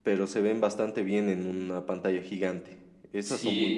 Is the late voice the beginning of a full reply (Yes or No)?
Yes